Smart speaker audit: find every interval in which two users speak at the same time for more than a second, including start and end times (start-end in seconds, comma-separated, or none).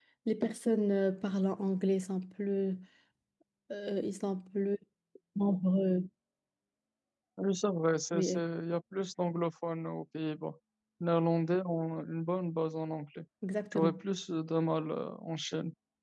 none